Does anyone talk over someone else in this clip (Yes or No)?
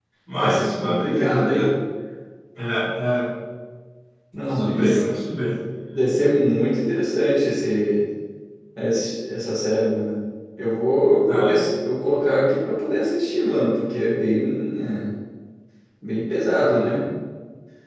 Yes